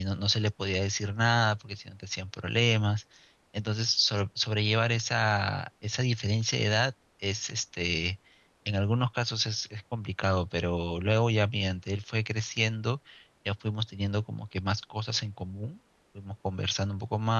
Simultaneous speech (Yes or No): No